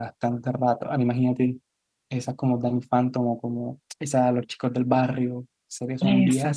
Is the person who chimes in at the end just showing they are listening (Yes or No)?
No